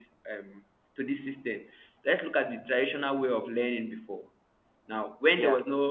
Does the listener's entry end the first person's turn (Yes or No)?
No